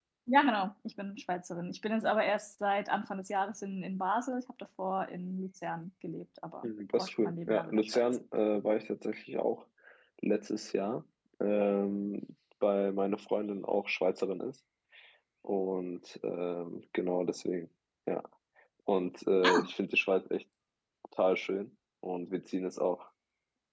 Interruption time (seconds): 6.6 s

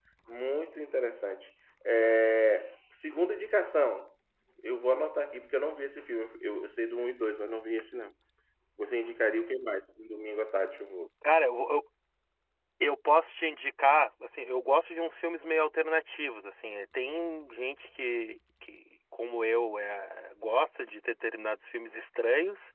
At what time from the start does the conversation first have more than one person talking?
none

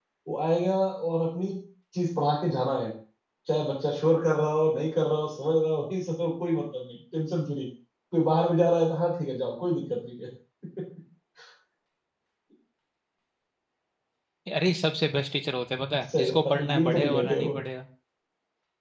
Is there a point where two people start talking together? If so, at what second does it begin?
16.1 s

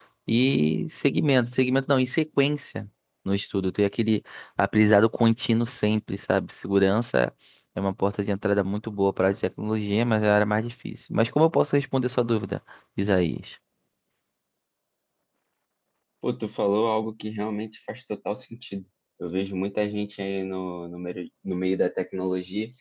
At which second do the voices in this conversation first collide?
none

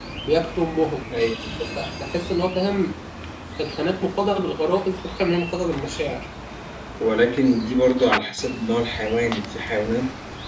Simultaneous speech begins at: none

